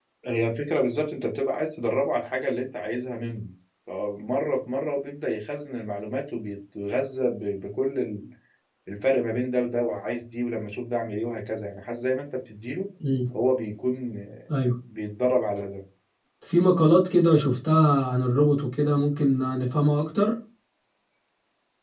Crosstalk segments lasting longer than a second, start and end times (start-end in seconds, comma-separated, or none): none